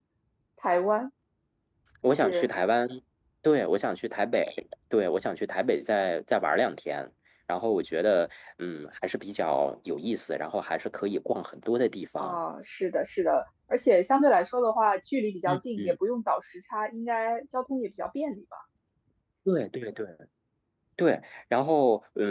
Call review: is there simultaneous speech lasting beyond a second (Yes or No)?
No